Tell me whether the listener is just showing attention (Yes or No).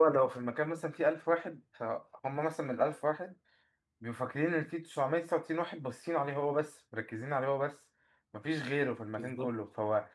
Yes